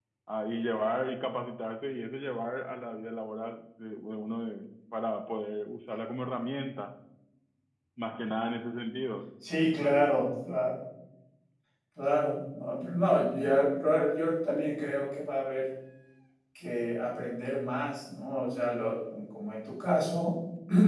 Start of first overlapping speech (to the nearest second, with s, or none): none